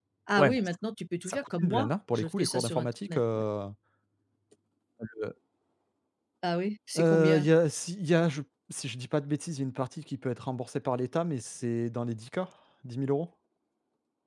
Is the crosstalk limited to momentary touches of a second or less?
No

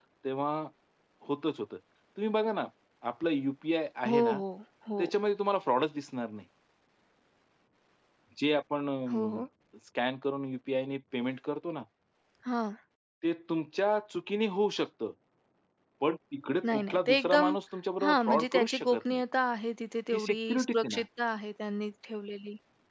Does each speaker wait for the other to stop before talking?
No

